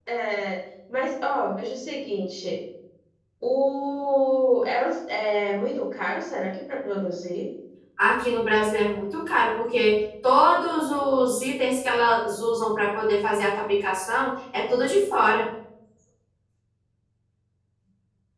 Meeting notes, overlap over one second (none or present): none